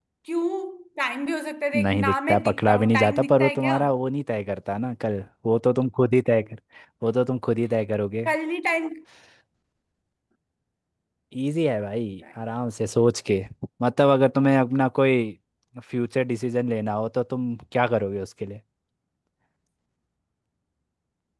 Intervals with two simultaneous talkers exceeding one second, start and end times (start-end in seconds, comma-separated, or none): 1.8-3.8